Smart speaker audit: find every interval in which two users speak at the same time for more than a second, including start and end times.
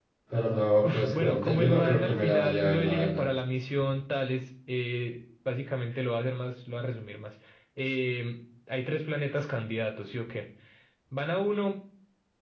0.8-3.3

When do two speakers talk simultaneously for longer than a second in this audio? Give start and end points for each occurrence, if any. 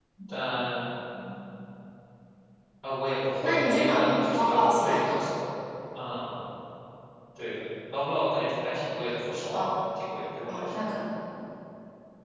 3.4-5.2

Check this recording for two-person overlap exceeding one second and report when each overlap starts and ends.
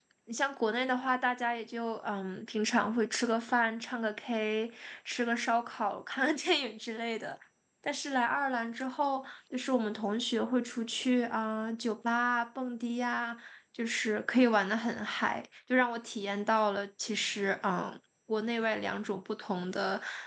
none

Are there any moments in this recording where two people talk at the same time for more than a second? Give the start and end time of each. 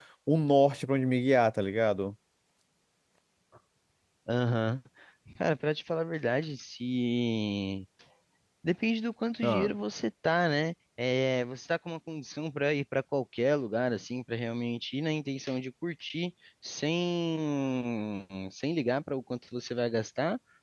none

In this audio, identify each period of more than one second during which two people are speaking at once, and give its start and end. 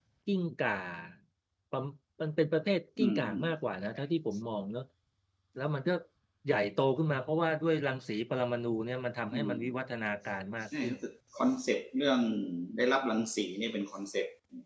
none

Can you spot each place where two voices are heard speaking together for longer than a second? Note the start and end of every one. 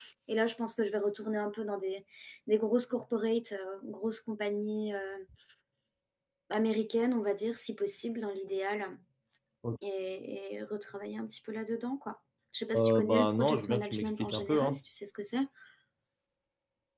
12.8-14.8

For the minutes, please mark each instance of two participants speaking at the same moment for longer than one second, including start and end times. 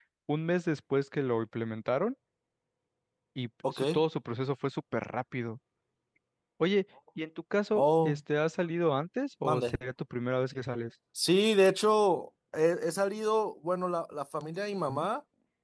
none

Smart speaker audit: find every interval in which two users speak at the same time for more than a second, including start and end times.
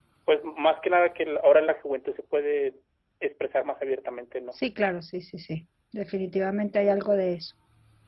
none

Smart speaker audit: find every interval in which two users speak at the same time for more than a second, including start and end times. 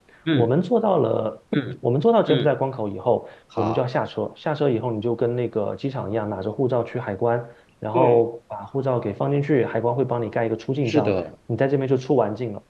none

